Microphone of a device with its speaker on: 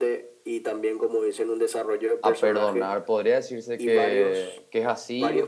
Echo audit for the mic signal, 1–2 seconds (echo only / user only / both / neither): echo only